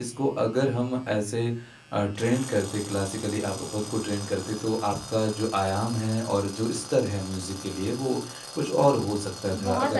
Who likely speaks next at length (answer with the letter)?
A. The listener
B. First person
A